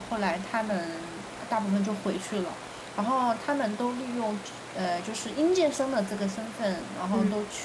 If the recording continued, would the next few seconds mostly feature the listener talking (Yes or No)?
No